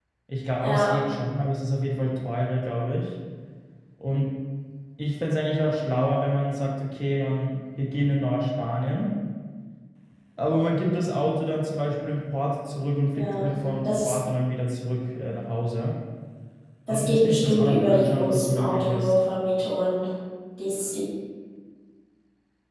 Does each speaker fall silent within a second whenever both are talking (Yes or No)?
No